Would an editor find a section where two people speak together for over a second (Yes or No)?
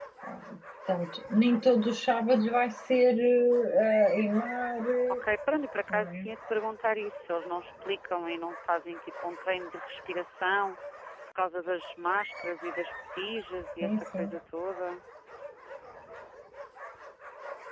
No